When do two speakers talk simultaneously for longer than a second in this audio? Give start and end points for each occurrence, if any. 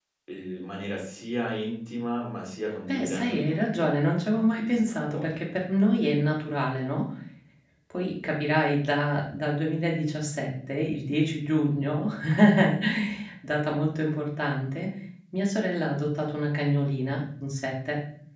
2.9-5.5

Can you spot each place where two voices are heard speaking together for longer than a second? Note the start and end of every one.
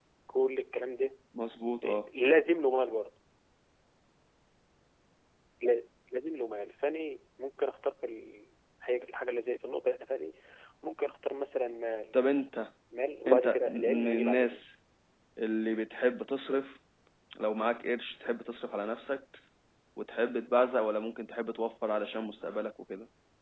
13.3-14.6

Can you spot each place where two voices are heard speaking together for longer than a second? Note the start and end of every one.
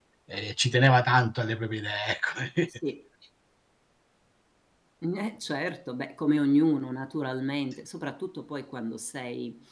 none

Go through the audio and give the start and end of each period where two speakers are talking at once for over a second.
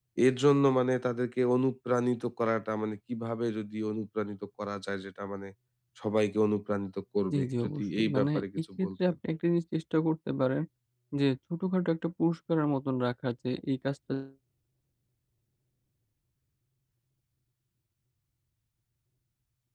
7.3-9.1

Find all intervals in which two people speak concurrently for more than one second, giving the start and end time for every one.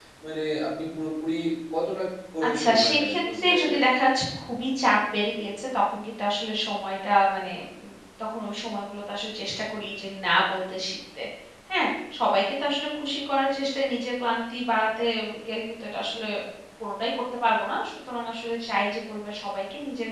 2.5-3.9

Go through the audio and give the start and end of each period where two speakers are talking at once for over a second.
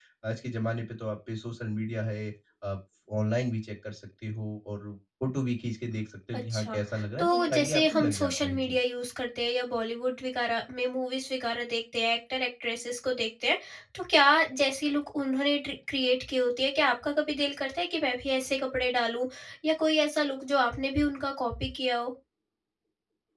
7.2-8.8

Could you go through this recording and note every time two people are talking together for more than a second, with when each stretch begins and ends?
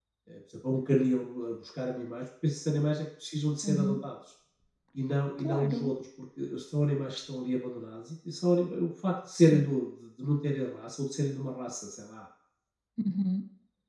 none

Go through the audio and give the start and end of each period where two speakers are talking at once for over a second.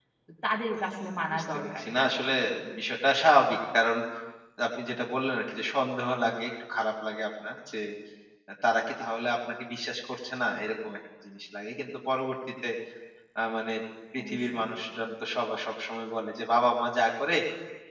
0.8-2.1

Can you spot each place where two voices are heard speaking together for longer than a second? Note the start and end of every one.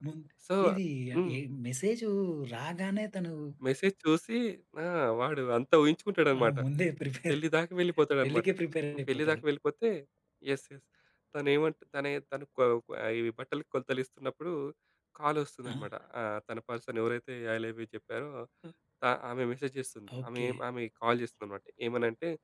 none

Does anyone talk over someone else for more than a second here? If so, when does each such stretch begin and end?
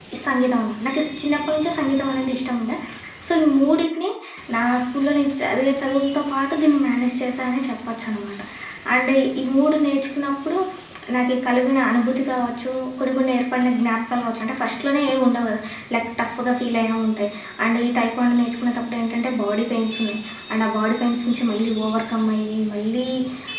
none

